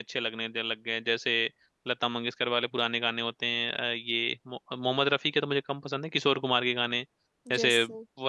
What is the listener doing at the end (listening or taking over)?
listening